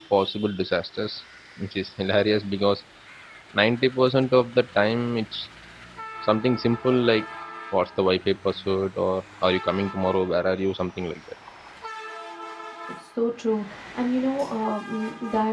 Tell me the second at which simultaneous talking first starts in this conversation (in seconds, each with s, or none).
none